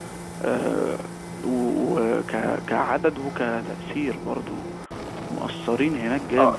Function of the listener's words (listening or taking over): taking over